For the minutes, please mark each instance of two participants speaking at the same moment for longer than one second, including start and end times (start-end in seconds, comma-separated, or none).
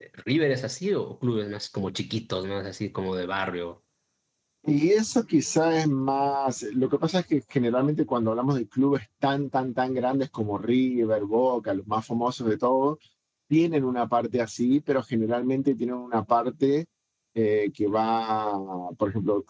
none